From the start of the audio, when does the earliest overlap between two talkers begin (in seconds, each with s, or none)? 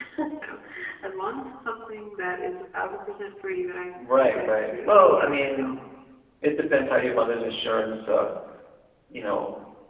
4.2 s